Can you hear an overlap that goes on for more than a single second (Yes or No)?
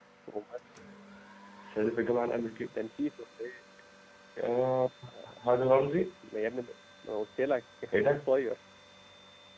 No